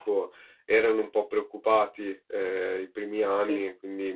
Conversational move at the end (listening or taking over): listening